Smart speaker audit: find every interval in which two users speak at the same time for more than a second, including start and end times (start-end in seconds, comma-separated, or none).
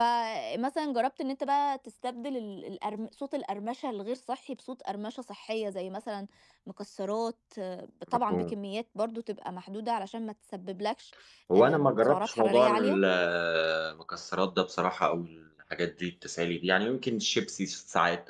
11.6-13.0